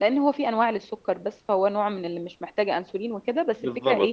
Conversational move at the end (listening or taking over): taking over